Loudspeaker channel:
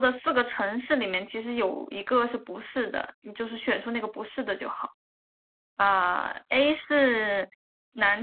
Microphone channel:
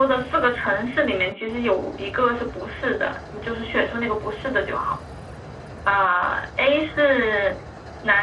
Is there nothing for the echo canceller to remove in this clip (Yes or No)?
No